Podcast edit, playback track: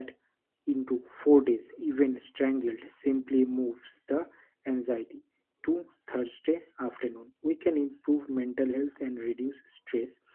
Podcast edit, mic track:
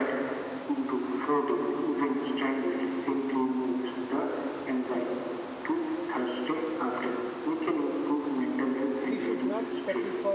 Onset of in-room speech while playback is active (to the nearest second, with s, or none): 9 s